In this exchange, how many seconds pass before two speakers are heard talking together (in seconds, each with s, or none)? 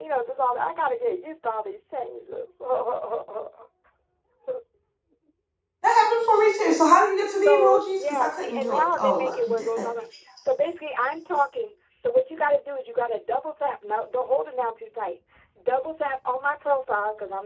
7.4 s